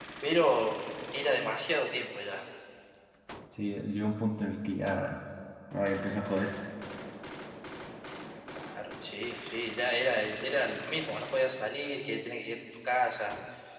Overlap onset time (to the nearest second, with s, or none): none